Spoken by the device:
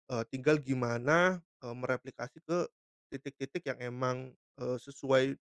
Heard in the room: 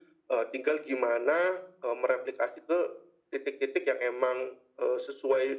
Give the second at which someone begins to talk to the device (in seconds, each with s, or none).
none